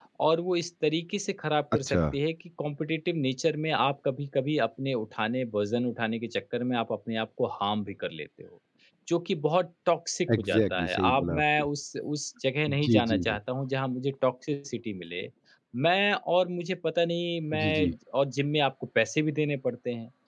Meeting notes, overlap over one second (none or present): present